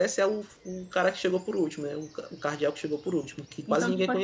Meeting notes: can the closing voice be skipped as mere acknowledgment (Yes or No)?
No